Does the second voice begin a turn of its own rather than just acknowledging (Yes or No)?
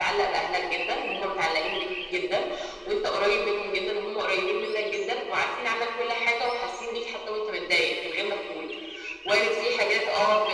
No